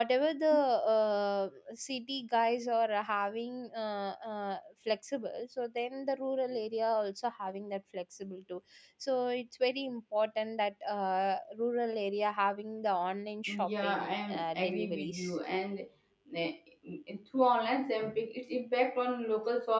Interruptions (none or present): present